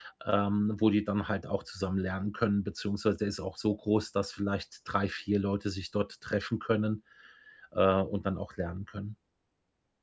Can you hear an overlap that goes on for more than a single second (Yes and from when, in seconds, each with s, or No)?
No